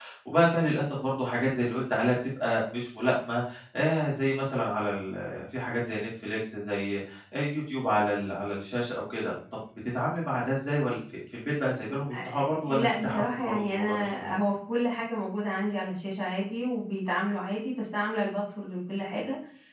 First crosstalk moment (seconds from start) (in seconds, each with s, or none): 12.1 s